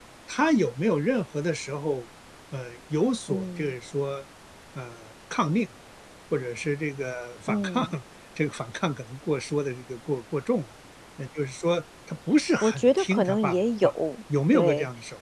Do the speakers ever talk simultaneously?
Yes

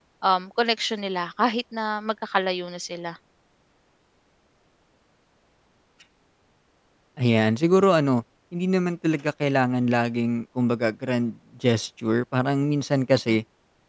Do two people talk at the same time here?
No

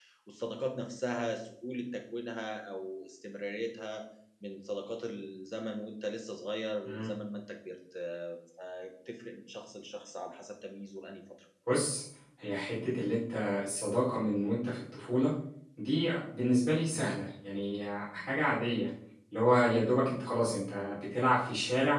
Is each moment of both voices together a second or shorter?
Yes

